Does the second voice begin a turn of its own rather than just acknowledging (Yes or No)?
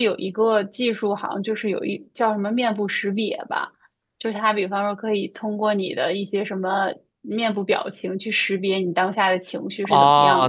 Yes